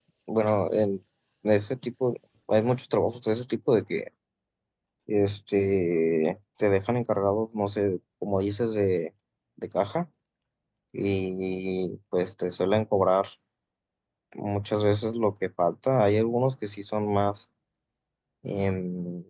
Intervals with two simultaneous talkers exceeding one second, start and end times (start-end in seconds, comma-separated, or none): none